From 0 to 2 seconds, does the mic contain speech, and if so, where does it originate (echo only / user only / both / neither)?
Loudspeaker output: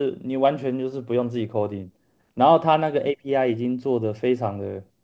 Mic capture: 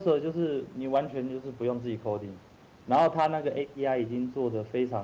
echo only